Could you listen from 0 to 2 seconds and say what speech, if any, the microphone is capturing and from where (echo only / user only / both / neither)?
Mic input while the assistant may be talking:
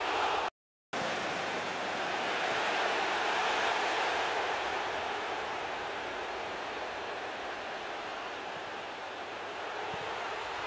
neither